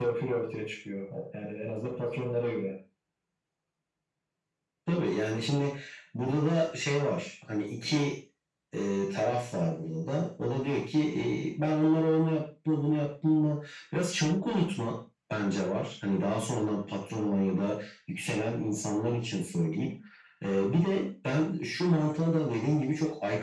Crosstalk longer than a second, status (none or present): none